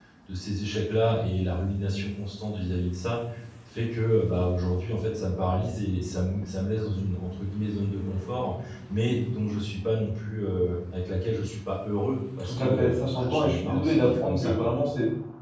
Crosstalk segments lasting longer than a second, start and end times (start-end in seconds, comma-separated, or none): 12.4-14.7